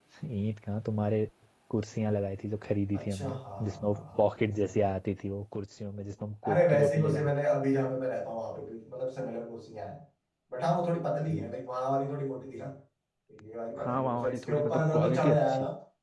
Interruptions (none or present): present